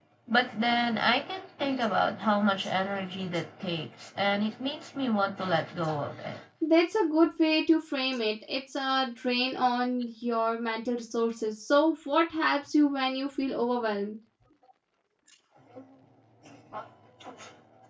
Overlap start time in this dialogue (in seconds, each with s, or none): none